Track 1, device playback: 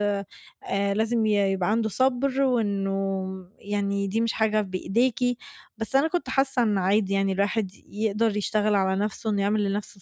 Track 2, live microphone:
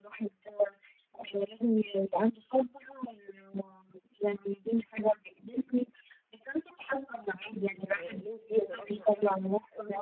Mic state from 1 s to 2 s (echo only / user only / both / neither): echo only